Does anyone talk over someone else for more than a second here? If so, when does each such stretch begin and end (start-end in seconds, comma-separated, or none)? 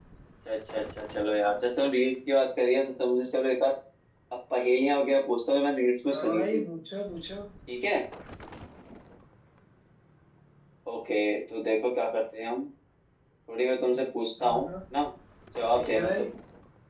none